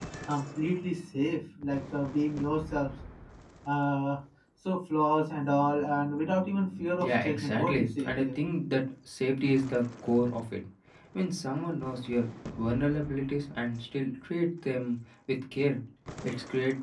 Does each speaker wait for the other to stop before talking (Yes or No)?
No